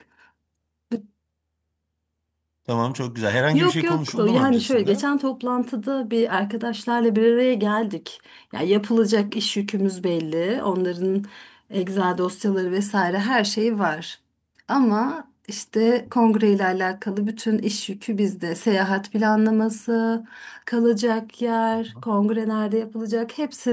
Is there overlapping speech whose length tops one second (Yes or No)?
Yes